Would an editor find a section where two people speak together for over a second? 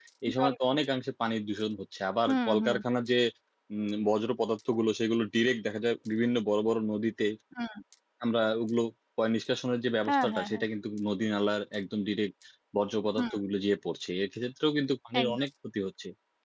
No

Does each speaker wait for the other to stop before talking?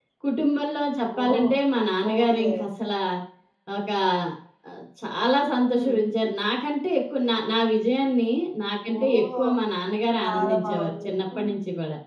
No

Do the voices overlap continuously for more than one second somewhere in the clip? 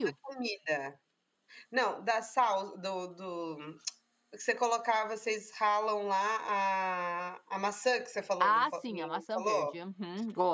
Yes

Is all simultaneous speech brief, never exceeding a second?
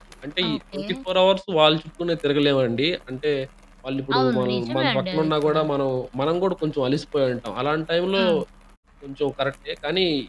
No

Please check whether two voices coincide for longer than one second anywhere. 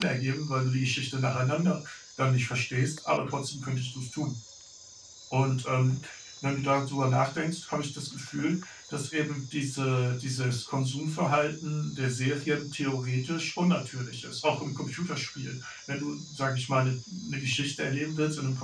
No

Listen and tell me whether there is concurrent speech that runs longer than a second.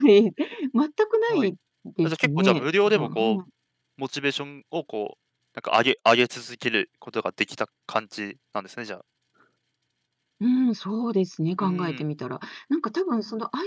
Yes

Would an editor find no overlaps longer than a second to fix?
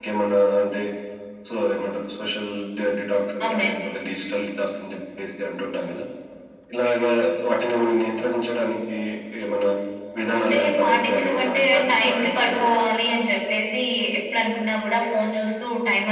No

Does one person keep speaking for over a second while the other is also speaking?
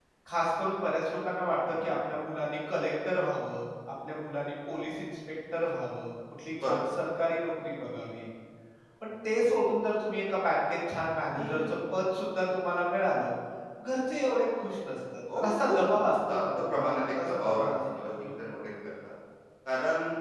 Yes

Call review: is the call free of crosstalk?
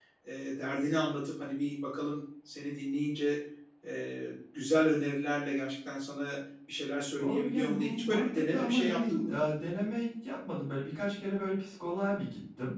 No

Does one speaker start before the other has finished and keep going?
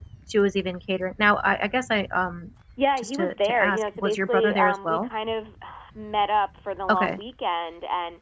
Yes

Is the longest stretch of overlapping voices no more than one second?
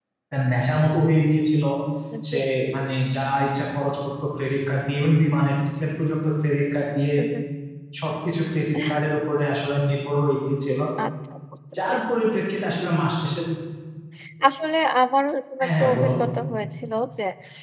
Yes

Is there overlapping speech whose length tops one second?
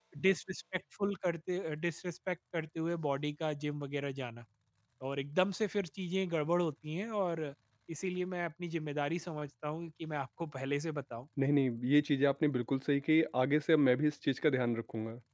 No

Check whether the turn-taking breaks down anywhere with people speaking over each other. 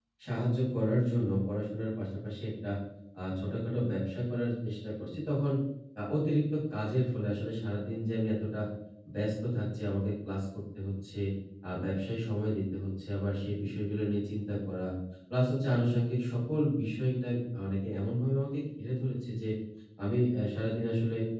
No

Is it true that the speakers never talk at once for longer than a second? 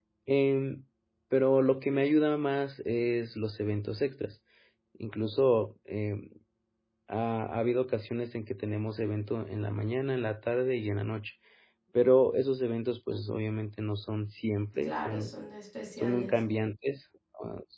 Yes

